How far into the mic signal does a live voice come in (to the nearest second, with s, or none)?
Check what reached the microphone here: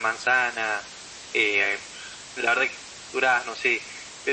none